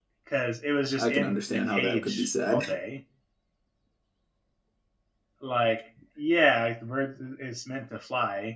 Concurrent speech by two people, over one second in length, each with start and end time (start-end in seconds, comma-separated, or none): 1.0-2.6